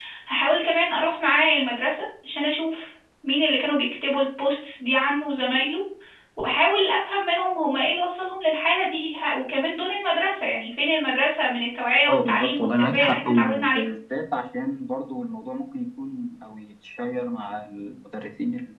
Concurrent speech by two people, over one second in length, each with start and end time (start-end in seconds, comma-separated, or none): 12.1-13.8